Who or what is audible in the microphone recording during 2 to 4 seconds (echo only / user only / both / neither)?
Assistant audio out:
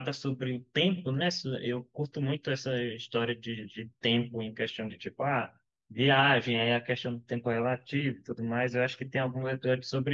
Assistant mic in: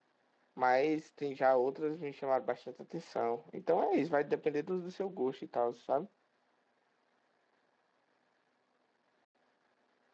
user only